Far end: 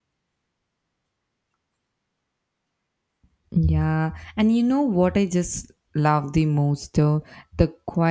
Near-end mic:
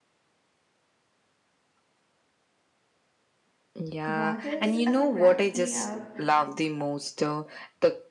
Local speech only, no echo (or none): what else uh, cracks me up